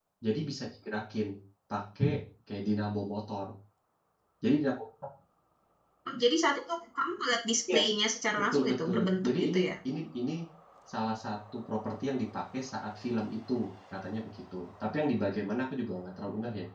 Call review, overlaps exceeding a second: present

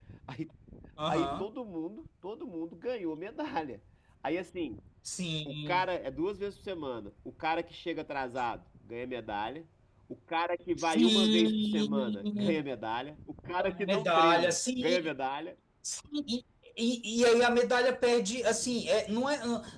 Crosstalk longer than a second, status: present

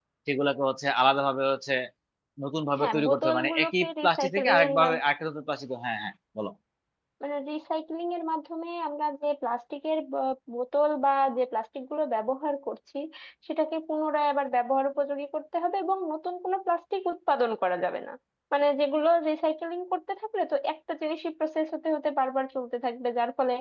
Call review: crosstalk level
present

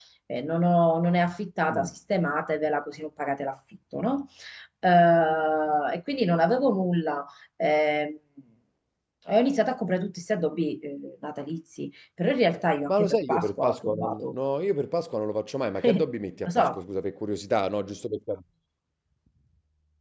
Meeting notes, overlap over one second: present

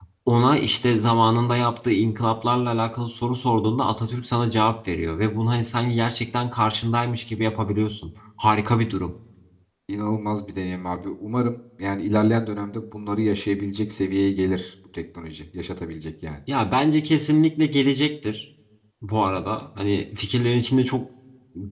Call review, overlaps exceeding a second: none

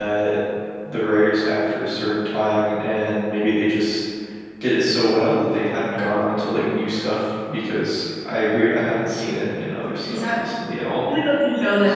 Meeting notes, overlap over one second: none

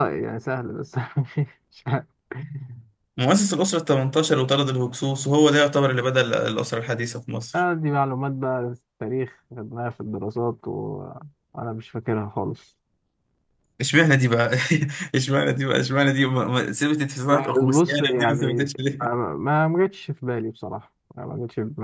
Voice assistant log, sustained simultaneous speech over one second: present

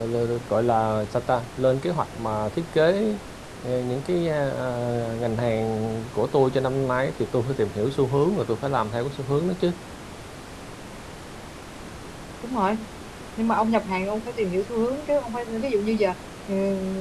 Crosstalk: none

